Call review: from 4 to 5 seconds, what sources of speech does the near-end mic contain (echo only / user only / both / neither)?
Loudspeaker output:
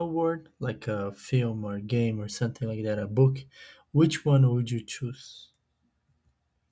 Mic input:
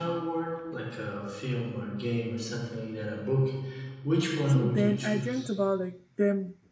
both